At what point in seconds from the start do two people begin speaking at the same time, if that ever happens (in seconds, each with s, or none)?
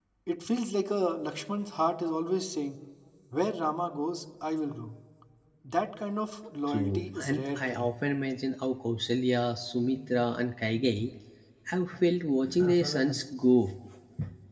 6.7 s